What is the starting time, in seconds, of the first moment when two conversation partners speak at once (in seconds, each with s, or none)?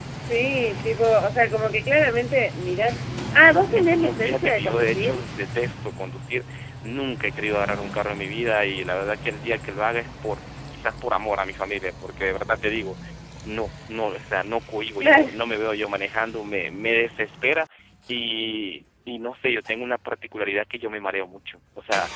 3.5 s